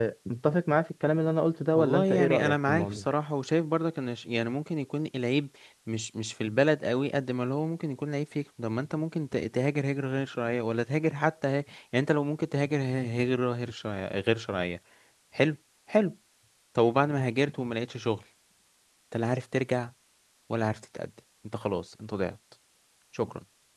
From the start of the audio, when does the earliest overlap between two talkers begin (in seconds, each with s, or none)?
1.7 s